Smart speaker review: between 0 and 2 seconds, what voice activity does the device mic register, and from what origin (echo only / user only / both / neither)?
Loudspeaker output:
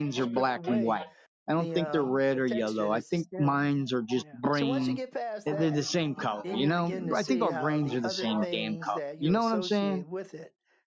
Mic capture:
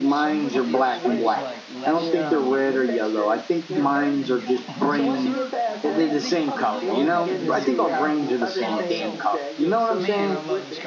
both